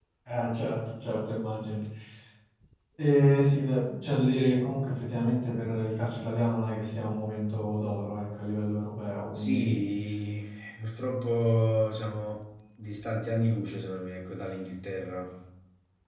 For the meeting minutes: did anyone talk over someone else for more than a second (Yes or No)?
No